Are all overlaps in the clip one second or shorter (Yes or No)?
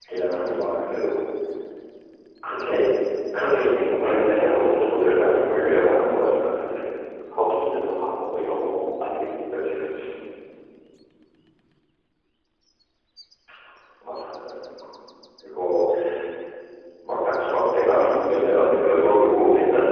No